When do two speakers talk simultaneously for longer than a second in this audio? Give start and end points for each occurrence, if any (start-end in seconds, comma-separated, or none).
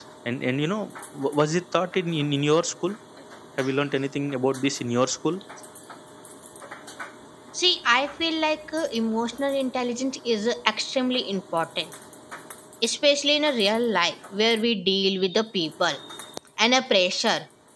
none